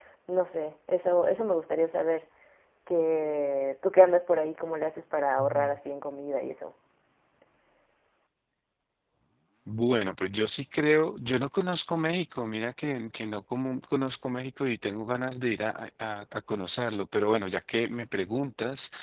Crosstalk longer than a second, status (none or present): none